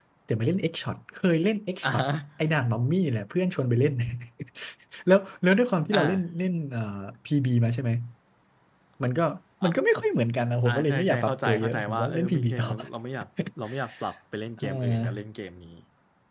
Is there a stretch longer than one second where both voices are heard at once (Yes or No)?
Yes